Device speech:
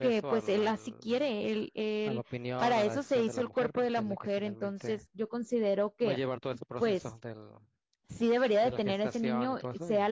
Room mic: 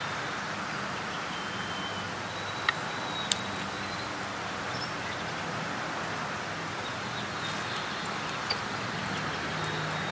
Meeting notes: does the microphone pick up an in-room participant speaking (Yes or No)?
No